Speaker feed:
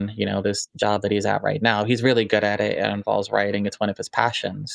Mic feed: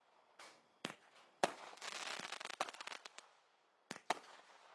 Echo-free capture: Yes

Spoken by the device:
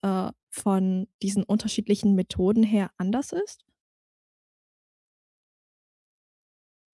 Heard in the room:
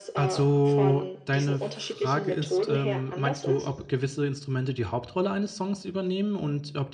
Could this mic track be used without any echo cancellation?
No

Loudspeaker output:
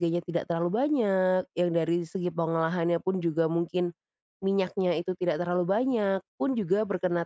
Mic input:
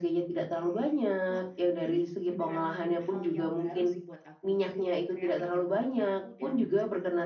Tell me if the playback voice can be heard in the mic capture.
Yes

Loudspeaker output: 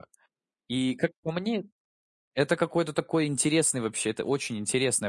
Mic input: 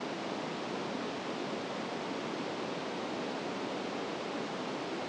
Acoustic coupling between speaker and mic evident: No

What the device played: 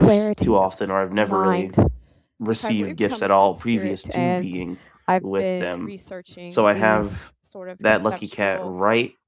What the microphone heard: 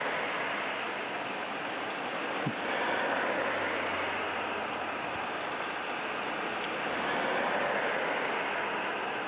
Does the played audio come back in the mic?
No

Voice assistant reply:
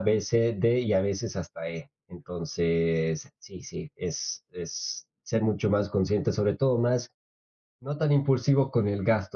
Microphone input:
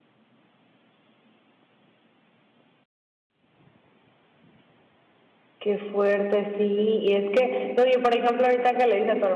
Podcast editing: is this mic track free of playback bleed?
Yes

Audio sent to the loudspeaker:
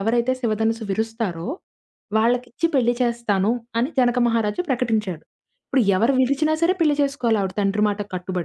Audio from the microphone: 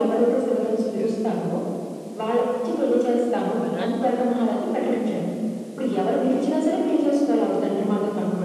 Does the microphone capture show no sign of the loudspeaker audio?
No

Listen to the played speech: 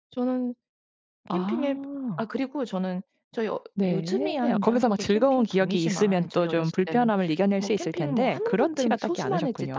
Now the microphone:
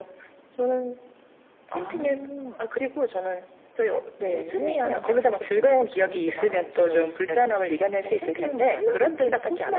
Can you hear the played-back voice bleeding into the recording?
Yes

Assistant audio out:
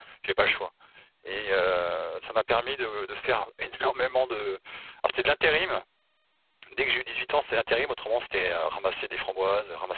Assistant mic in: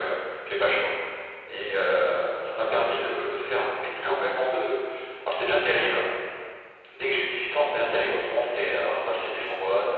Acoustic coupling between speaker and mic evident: Yes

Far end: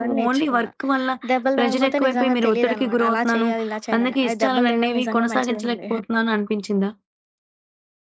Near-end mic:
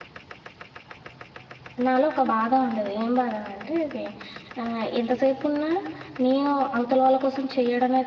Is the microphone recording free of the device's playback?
Yes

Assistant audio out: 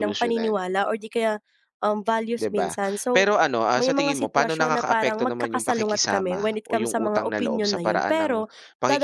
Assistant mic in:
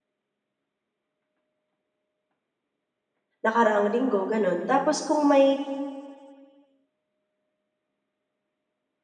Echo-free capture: Yes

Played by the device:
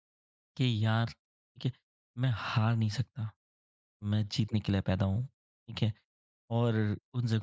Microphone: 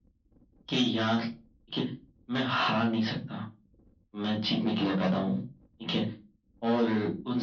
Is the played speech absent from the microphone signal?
No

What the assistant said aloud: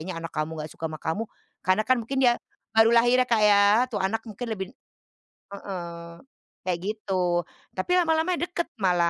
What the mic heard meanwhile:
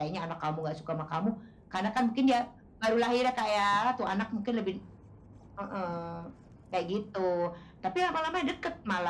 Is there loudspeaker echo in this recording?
Yes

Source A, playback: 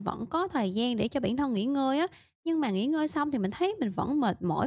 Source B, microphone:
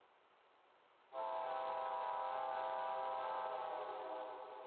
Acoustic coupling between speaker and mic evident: No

